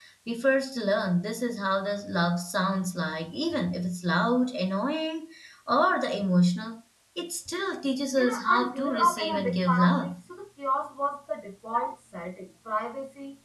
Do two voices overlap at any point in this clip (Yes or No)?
Yes